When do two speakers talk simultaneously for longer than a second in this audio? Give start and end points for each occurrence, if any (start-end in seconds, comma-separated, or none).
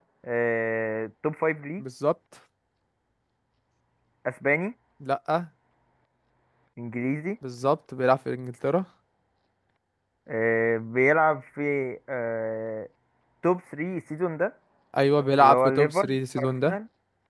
15.4-16.8